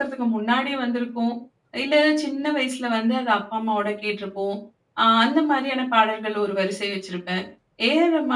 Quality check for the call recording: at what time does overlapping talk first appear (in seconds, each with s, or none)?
none